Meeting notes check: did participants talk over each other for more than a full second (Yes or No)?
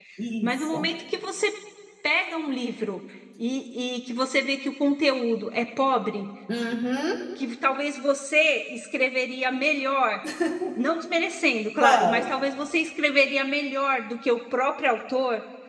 No